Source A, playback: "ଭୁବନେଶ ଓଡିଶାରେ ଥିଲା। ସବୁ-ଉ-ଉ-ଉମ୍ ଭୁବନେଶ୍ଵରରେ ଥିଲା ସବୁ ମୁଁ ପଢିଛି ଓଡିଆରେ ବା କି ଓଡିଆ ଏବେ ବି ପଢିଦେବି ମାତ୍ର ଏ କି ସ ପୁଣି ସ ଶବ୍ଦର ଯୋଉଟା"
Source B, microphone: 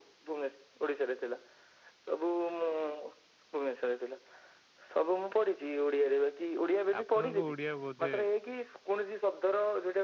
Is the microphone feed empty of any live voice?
No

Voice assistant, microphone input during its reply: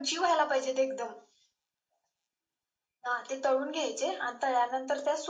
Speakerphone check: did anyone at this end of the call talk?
No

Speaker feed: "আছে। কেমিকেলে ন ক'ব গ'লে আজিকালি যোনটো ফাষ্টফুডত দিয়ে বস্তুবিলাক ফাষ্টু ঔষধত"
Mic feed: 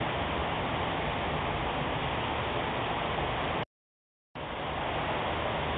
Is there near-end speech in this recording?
No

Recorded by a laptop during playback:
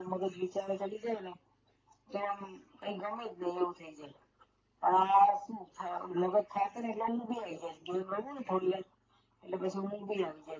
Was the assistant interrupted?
No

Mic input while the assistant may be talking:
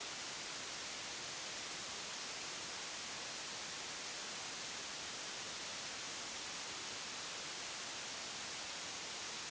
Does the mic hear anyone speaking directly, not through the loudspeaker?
No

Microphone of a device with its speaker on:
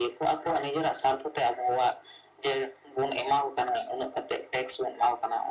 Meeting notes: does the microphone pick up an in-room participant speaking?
No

